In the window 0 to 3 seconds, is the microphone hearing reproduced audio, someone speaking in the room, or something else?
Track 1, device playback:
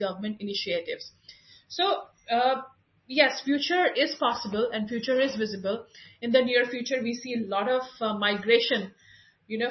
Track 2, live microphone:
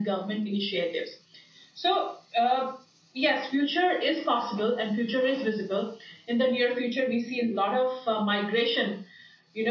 echo only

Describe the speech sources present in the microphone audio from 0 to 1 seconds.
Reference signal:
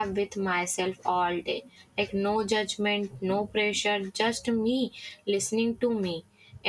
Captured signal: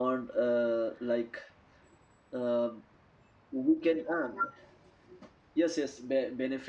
user only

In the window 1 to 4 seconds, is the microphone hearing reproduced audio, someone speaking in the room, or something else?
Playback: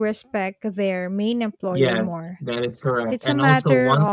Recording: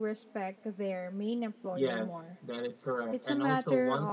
echo only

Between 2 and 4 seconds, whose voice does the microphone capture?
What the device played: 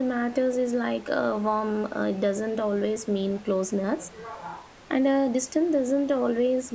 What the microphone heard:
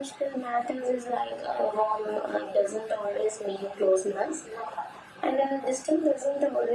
echo only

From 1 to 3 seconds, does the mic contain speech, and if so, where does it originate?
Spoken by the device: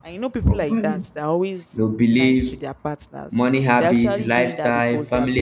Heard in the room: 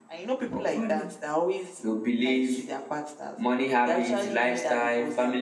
echo only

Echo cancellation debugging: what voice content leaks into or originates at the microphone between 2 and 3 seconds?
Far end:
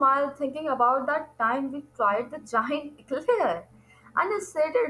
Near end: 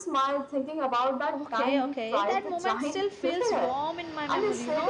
both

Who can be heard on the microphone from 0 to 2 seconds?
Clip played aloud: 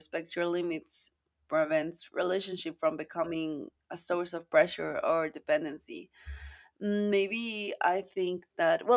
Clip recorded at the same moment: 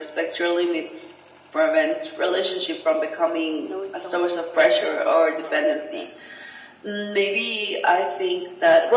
echo only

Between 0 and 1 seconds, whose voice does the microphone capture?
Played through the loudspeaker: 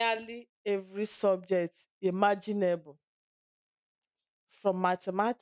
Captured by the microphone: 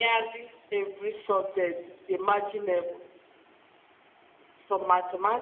echo only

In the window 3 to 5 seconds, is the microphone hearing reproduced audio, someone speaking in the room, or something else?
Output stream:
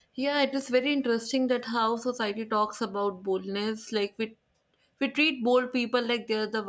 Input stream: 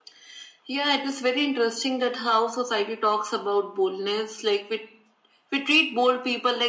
echo only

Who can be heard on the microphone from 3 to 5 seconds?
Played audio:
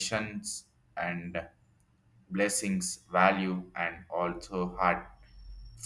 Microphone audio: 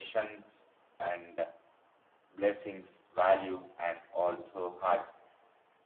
echo only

